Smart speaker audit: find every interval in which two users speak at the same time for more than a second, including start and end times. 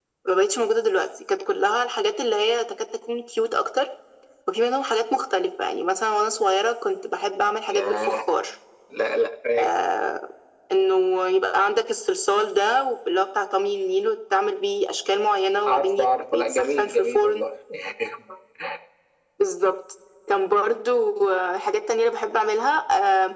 15.7-17.4

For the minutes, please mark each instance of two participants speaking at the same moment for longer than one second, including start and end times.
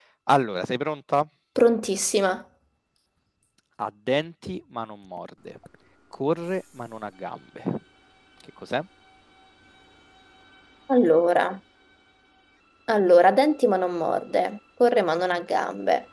none

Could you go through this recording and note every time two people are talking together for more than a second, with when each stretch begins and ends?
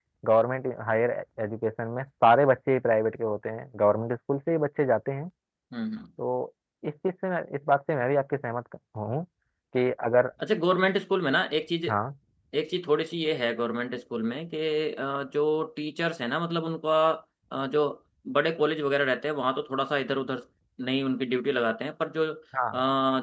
none

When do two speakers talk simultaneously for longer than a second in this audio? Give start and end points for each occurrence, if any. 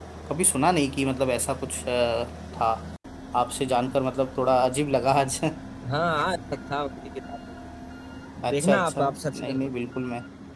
8.5-9.7

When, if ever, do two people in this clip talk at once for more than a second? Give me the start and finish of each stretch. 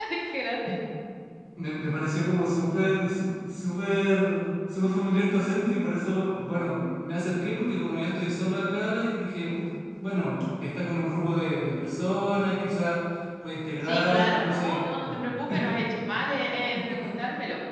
13.8-15.2

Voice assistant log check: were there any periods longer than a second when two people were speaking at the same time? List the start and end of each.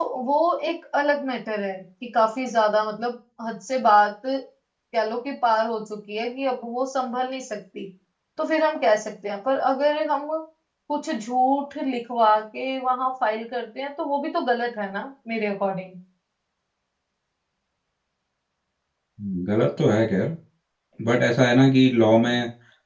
none

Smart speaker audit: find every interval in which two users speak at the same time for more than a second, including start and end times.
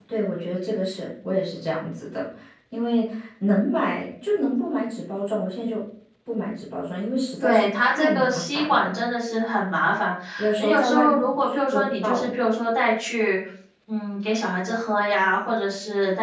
7.4-9.0, 10.6-12.3

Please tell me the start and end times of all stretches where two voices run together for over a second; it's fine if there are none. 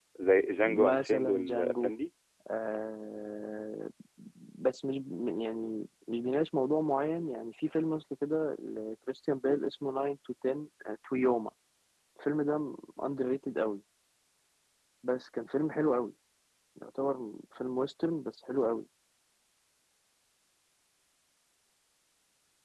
0.6-1.9

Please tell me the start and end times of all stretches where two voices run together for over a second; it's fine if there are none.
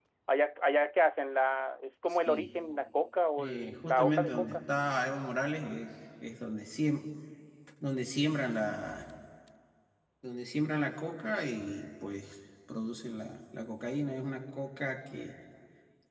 3.4-4.6

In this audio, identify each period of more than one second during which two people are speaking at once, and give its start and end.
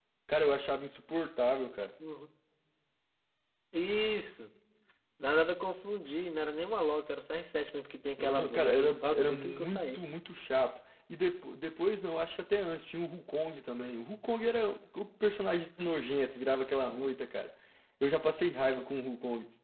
8.2-10.0

